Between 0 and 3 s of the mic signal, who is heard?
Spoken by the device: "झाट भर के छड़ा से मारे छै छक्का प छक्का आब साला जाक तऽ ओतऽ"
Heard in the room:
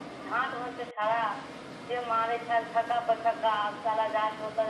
echo only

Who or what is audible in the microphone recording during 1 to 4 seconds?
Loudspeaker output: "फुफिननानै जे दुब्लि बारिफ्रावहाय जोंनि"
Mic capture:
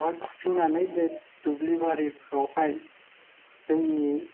echo only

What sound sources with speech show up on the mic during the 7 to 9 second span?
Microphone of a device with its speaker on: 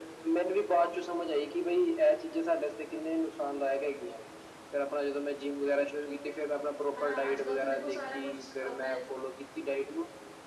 both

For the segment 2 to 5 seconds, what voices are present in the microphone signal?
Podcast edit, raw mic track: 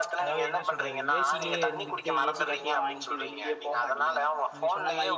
both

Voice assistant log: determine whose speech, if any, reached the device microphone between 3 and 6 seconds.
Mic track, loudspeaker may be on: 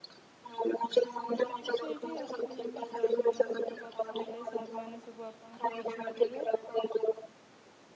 both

